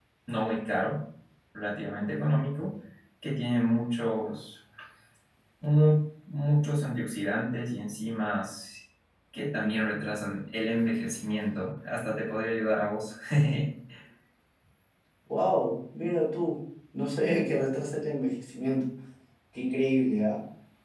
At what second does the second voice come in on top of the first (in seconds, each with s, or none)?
none